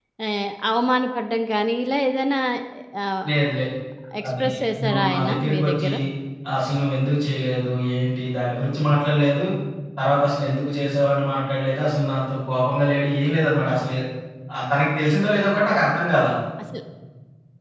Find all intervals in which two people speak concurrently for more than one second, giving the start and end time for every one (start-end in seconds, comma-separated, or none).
4.3-5.9